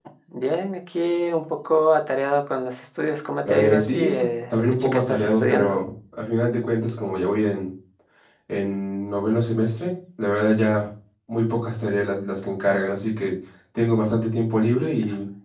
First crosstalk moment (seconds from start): 3.4 s

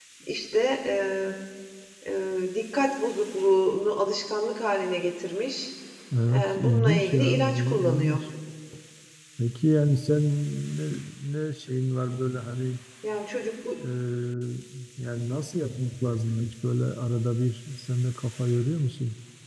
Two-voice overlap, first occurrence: 6.3 s

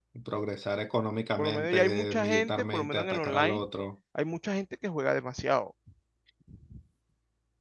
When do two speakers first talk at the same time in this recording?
1.4 s

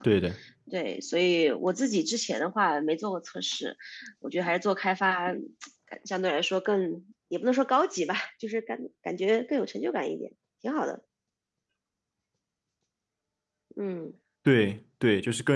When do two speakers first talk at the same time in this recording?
none

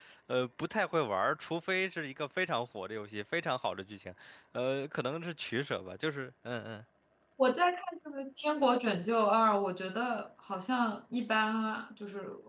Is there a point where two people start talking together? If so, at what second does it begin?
none

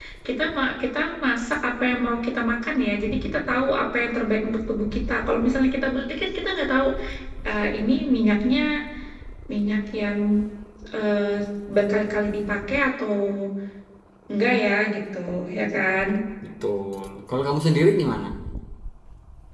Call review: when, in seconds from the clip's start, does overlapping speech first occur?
none

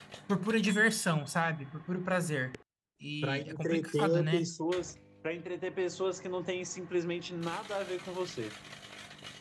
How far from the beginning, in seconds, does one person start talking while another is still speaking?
3.2 s

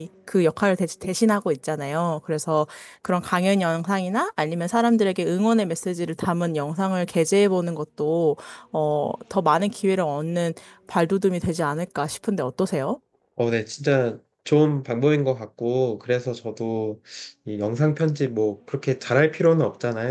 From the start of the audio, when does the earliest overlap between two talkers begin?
none

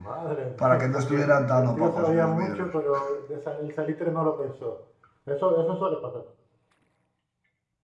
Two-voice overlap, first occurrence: 0.6 s

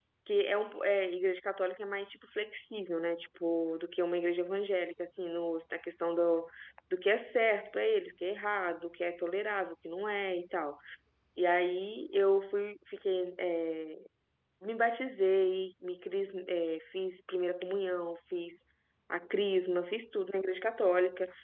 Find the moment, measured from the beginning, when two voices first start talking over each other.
none

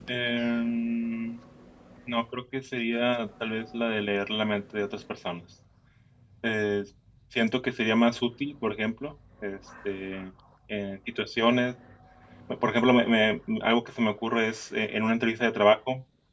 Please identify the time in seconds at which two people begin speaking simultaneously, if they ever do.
none

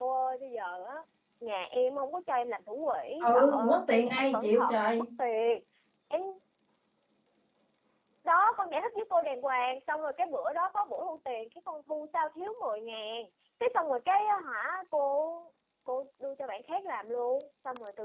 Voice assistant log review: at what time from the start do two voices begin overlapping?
3.2 s

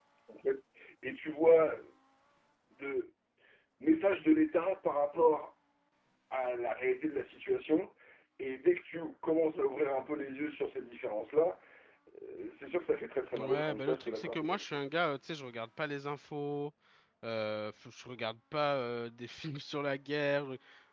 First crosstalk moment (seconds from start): 13.3 s

